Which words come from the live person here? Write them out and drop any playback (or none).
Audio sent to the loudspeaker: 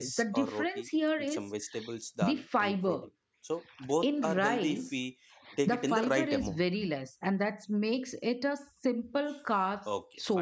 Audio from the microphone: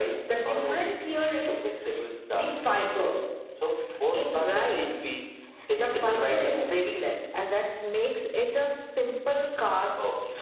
none